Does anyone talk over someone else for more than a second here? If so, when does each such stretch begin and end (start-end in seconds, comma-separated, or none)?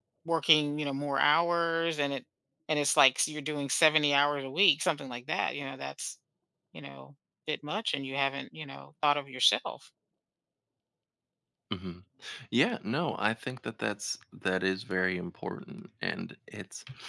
none